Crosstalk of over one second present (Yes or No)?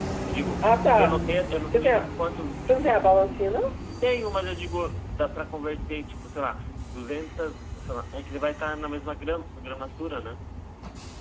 No